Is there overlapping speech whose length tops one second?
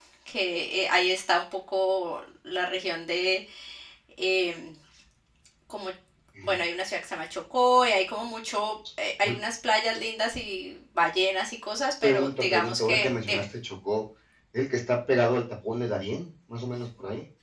Yes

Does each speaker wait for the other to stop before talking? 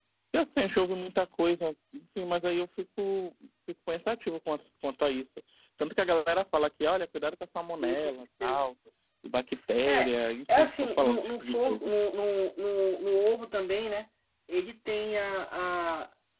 No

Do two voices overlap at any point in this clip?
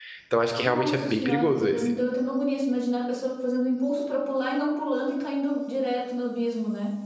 Yes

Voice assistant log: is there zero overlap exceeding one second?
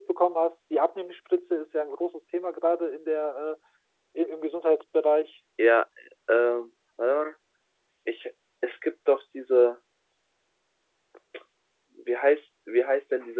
Yes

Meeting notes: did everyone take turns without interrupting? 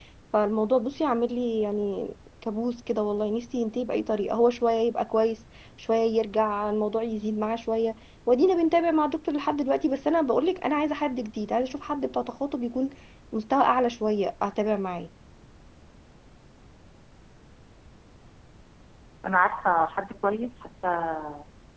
Yes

